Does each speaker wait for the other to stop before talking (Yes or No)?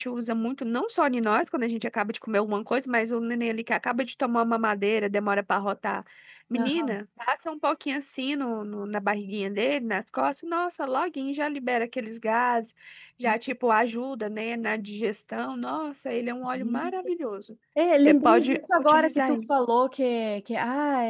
No